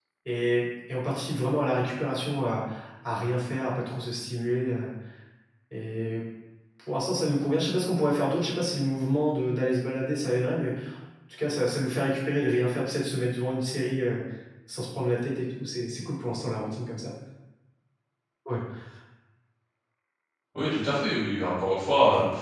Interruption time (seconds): none

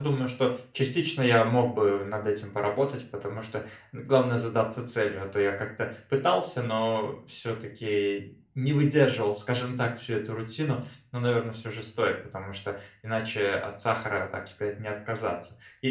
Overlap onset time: none

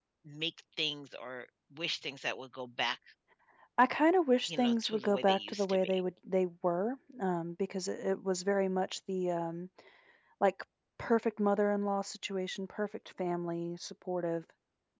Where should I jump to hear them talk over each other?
4 s

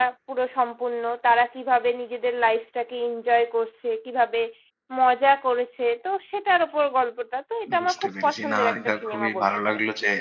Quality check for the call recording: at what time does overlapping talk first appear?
8 s

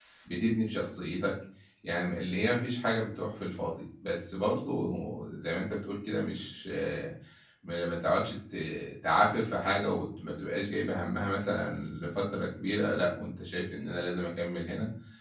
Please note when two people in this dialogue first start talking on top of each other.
none

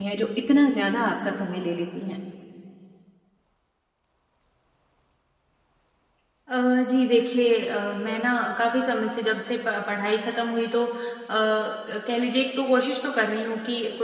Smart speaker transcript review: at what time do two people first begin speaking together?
none

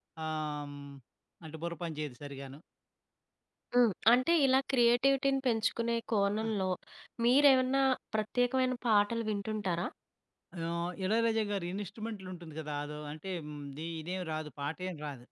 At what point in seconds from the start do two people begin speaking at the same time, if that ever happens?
none

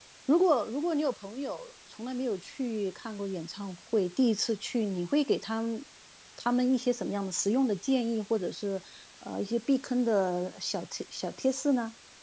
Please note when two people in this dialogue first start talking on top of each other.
none

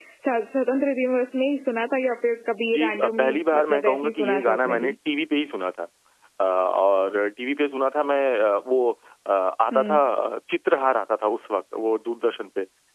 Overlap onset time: 3 s

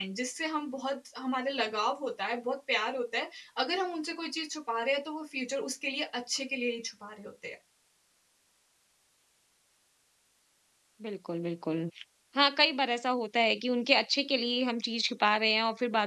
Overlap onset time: none

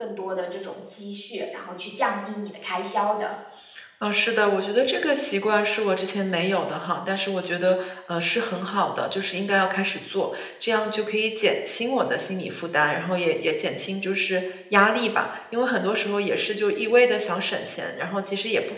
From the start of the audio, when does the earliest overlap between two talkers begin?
none

